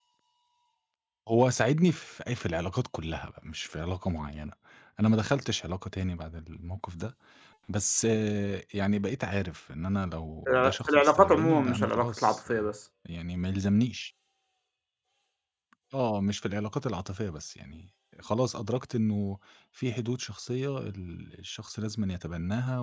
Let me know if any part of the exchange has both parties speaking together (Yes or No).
Yes